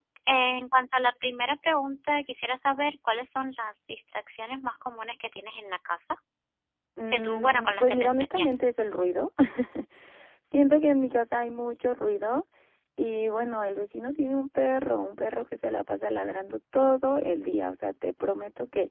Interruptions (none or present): present